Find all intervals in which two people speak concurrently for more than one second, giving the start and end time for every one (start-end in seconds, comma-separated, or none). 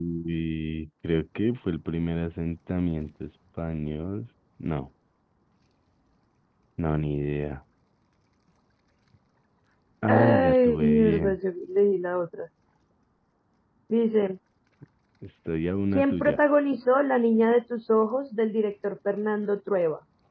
10.1-11.4